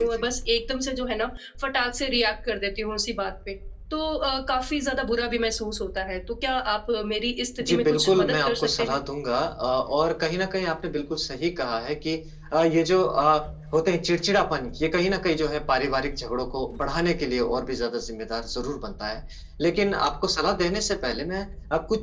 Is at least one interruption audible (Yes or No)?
Yes